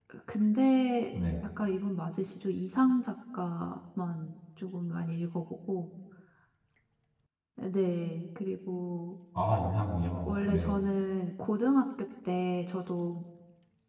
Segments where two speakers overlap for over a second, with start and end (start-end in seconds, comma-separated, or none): none